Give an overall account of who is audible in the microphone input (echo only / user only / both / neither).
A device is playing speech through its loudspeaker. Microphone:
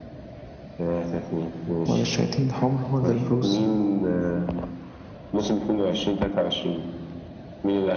both